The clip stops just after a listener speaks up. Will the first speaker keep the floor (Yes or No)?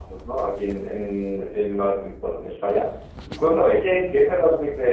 Yes